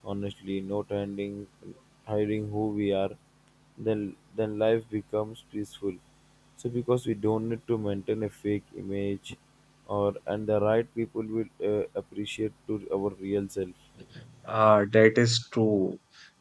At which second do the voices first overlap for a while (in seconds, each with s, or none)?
none